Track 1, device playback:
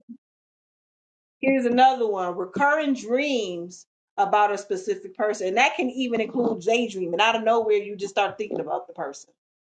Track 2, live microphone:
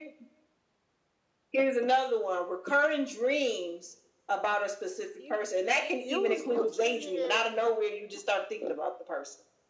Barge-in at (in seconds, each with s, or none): 5.2 s